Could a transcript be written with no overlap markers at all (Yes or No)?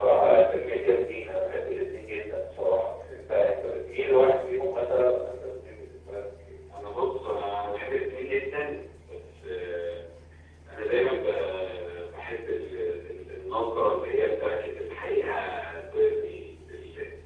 Yes